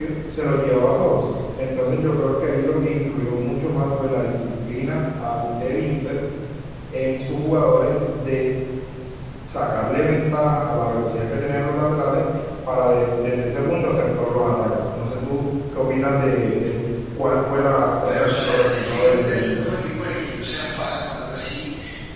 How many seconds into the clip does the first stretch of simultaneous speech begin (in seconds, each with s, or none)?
18.0 s